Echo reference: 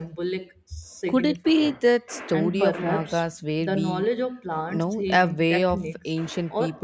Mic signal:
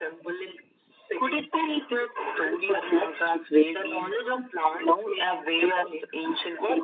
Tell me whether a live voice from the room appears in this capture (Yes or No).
No